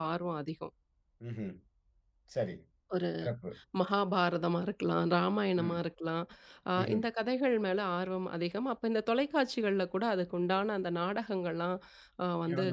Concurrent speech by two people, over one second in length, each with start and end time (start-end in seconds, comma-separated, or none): none